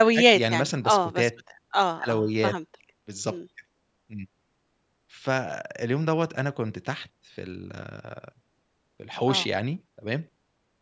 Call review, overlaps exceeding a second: present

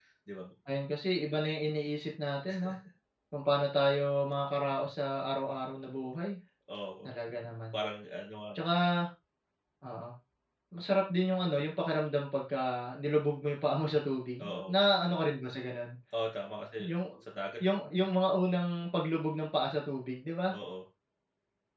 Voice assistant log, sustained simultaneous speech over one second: none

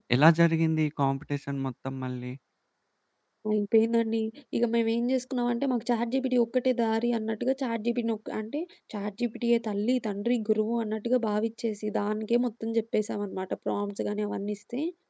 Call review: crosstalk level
none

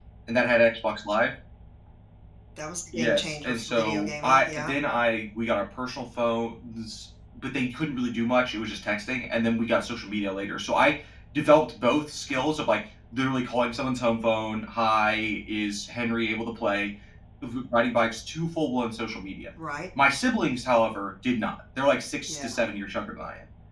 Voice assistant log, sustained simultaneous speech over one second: present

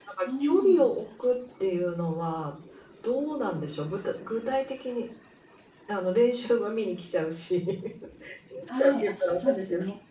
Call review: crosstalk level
present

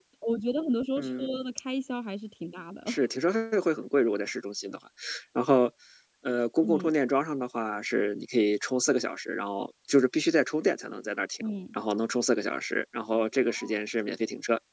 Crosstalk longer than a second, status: none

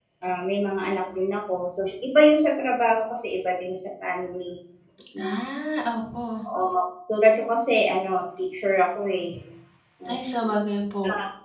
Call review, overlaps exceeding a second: none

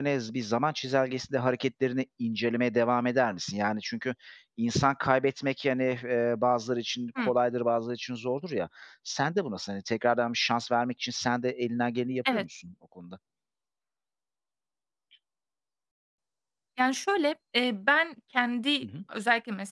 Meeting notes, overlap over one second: none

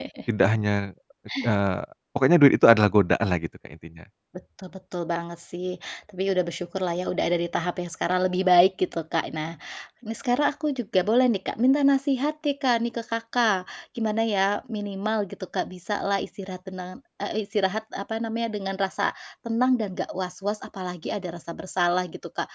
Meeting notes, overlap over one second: none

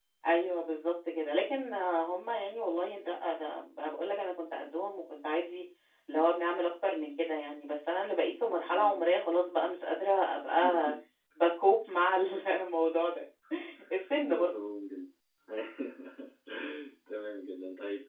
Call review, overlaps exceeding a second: none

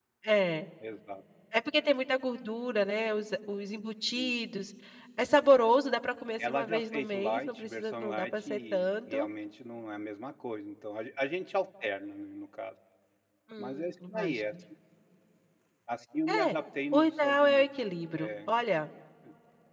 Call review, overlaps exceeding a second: present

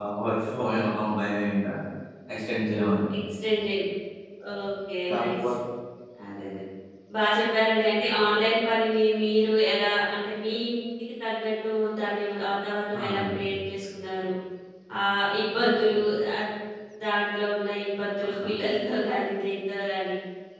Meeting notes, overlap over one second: none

